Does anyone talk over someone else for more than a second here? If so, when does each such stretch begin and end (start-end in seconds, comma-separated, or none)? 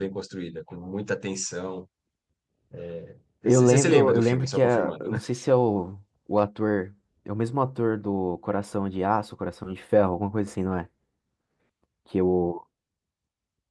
3.4-5.2